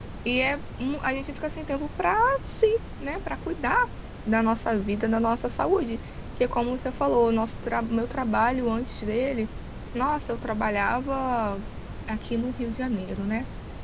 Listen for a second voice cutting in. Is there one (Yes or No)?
No